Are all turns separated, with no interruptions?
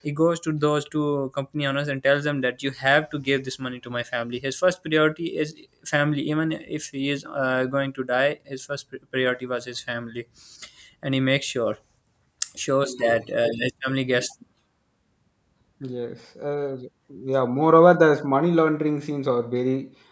Yes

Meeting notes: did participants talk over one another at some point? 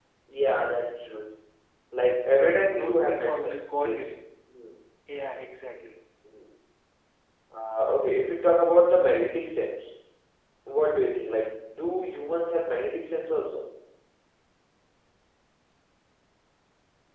Yes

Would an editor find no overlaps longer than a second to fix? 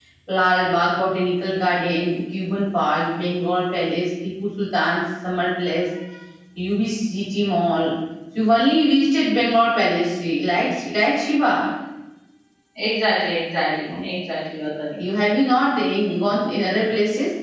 Yes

